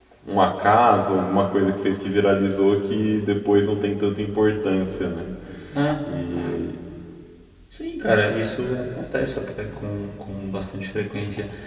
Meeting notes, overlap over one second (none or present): none